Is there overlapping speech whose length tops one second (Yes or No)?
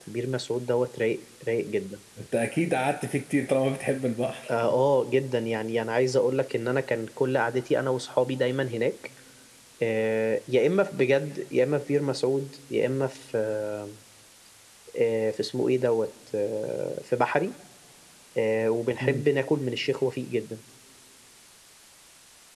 No